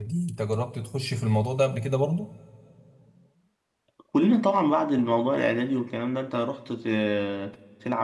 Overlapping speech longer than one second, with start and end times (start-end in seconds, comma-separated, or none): none